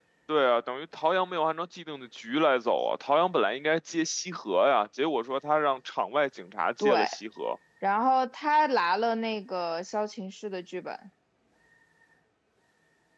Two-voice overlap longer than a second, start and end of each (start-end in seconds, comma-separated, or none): none